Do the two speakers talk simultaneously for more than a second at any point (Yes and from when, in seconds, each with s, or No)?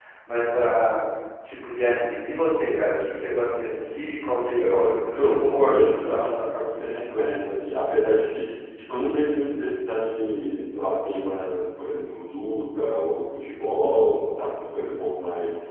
Yes, from 4.6 s